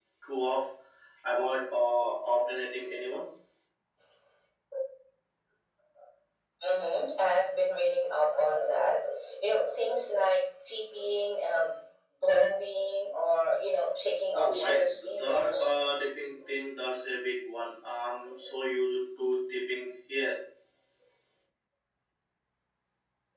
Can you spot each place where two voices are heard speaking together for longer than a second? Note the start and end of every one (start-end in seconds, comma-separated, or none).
14.3-15.7